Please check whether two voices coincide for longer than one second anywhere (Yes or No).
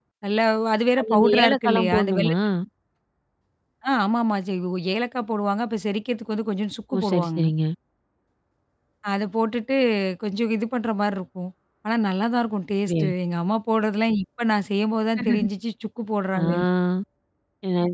Yes